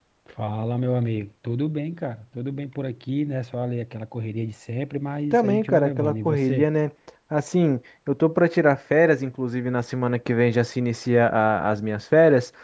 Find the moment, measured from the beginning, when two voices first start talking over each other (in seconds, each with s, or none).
5.3 s